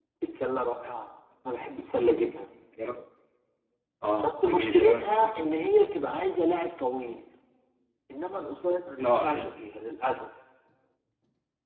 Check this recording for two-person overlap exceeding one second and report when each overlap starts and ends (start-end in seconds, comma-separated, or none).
4.2-5.6